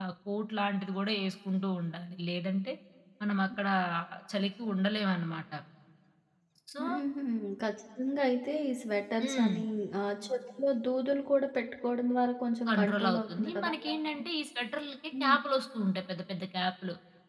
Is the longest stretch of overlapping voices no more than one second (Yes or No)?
No